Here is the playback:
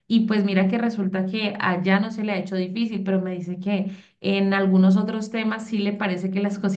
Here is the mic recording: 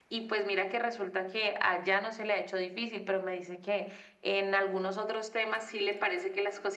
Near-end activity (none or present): none